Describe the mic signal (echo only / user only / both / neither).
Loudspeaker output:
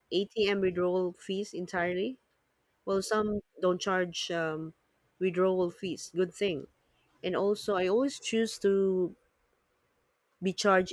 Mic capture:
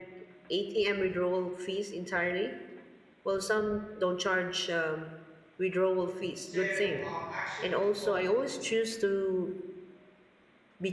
both